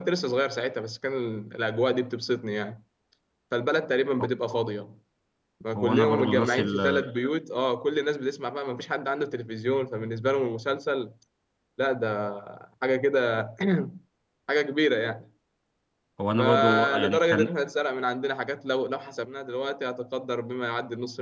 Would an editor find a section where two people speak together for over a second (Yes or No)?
Yes